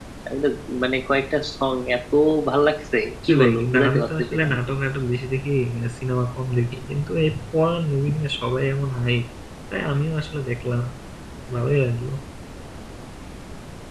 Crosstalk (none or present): present